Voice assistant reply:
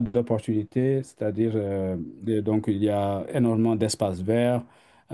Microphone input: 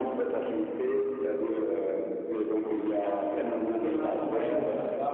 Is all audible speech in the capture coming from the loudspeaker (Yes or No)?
No